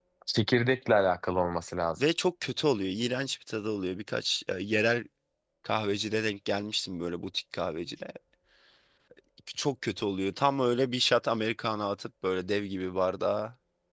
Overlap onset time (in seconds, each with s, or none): none